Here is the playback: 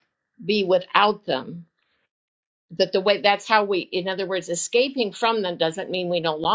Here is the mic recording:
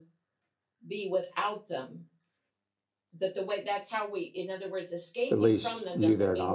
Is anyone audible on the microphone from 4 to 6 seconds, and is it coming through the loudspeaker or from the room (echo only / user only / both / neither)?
both